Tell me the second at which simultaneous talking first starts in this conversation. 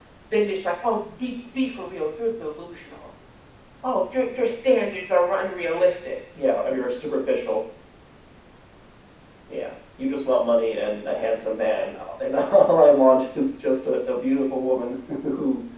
none

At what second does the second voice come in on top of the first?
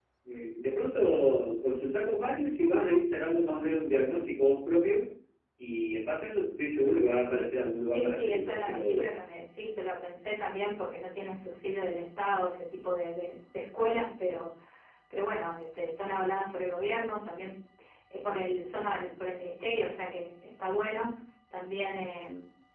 8 s

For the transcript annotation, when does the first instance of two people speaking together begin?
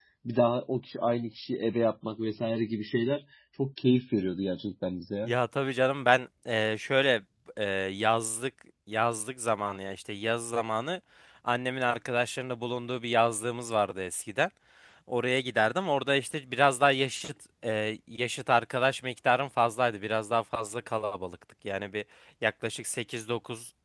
none

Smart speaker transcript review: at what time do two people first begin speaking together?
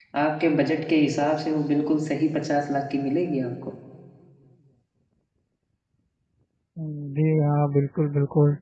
none

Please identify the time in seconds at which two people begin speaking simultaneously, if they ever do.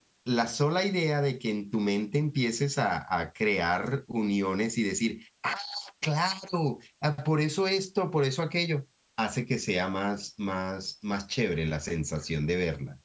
none

